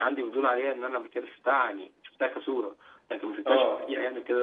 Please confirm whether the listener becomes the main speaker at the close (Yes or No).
No